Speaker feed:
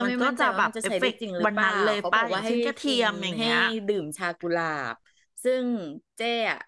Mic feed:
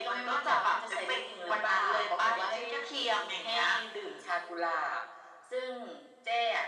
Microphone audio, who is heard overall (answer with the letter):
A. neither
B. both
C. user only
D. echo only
D